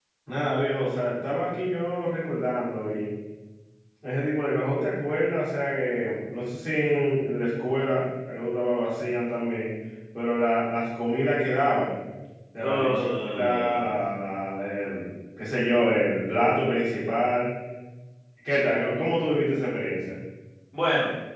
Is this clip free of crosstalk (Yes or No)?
No